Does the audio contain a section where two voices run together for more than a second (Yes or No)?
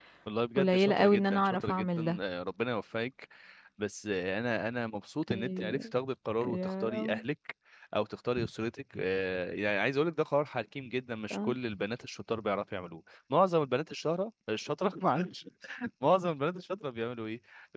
Yes